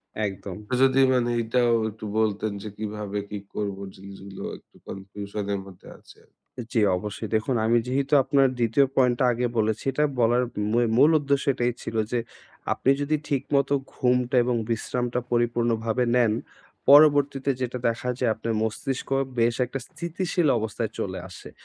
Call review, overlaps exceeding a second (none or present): none